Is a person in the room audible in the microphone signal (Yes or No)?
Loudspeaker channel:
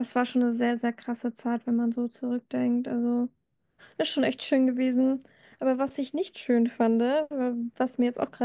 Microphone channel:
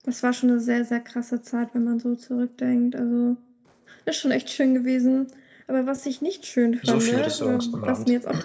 Yes